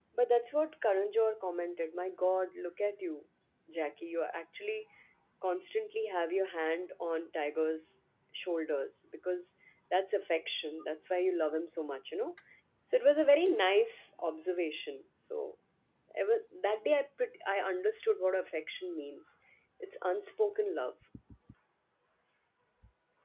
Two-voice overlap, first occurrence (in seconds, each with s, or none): none